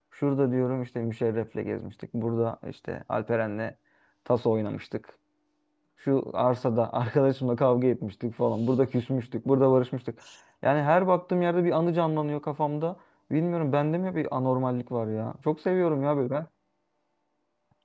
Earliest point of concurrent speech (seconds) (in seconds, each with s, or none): none